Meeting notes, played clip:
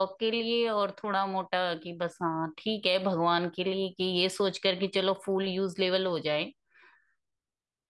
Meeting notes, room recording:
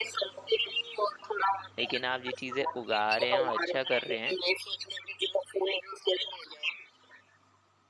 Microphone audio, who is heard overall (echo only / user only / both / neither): both